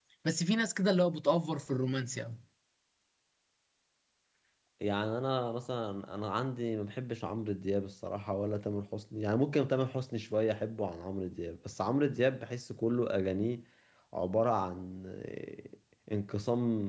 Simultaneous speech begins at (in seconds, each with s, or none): none